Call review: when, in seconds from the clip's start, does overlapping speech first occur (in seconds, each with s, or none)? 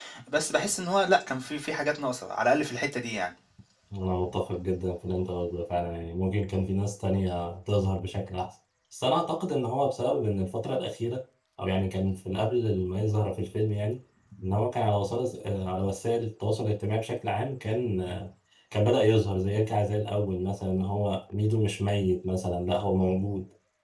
none